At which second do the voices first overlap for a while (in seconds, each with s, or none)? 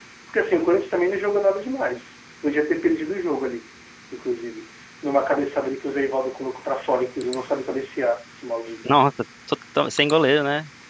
none